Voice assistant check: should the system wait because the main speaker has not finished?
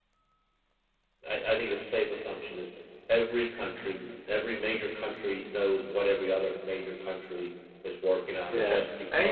No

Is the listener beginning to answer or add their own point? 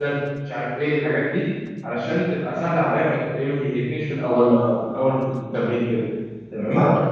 Yes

